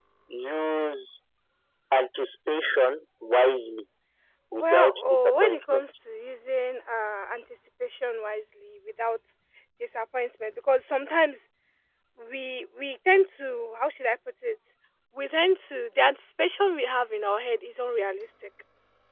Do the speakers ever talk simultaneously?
Yes, from 4.5 s

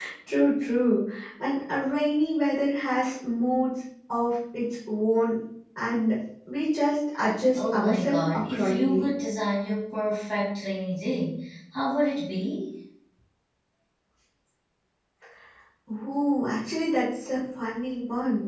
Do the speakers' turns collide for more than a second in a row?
Yes, from 7.6 s

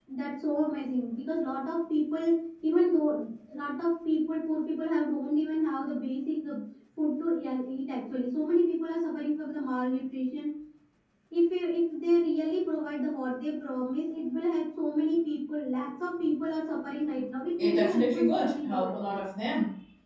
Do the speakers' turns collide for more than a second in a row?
Yes, from 17.6 s

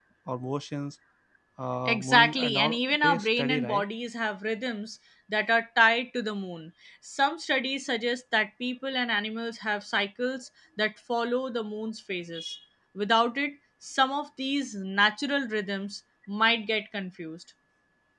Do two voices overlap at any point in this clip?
Yes, from 1.8 s

